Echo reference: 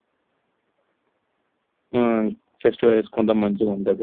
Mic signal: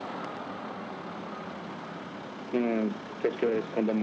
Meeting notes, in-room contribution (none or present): none